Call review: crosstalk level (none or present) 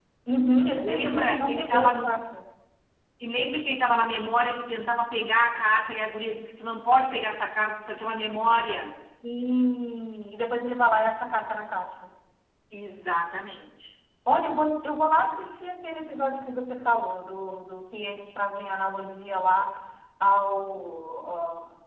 present